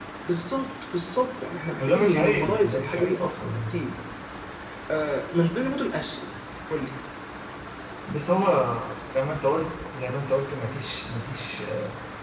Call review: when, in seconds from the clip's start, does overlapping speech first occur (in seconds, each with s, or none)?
1.8 s